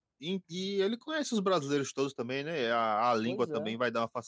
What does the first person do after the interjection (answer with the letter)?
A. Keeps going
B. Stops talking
A